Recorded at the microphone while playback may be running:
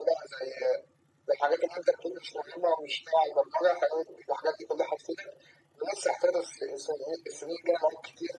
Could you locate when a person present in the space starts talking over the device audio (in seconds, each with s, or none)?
none